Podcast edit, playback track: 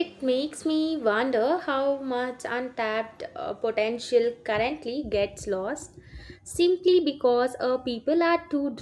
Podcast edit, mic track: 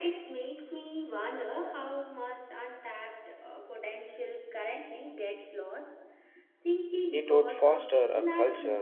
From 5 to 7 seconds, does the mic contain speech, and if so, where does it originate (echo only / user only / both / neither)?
echo only